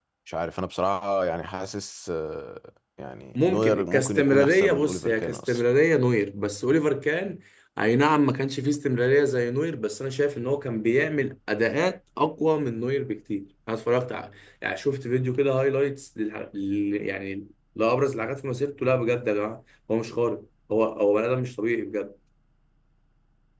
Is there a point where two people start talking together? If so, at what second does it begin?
3.4 s

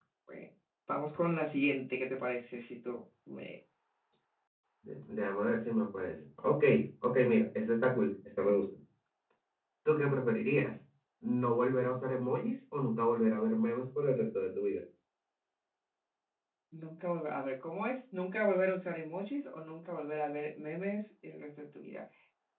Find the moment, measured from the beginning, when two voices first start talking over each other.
none

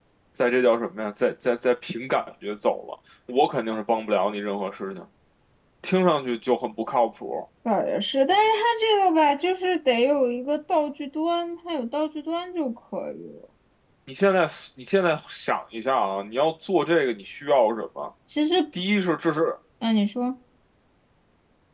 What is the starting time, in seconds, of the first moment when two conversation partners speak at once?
none

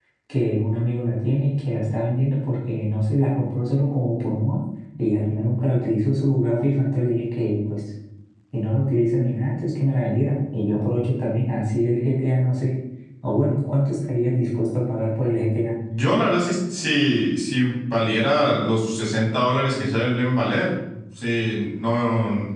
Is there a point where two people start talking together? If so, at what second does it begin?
none

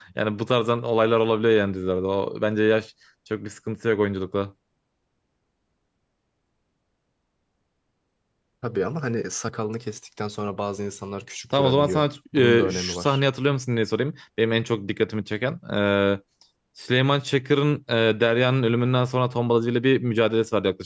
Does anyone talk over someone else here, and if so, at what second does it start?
11.5 s

